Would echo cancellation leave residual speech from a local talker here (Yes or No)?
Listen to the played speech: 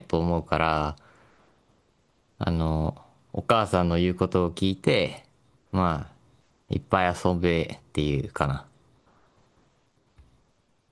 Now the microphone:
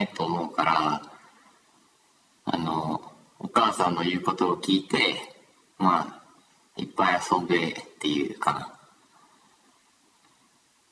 No